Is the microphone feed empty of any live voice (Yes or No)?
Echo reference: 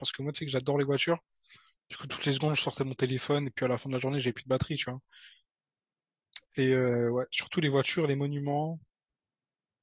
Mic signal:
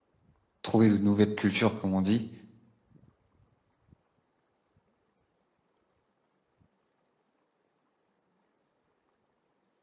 No